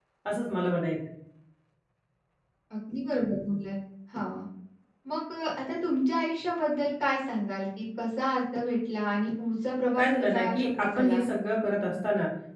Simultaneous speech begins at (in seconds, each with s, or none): 9.9 s